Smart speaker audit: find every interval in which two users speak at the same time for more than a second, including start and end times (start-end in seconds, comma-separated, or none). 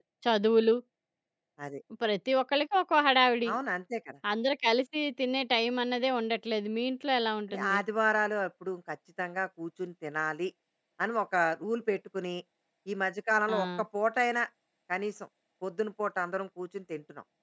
none